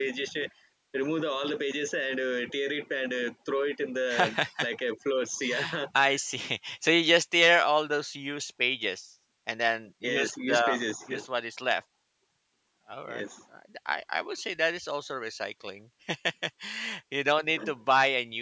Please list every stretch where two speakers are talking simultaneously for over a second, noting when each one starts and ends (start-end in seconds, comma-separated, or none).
10.0-11.3